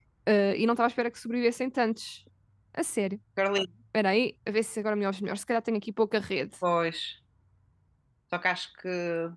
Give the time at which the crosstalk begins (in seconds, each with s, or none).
none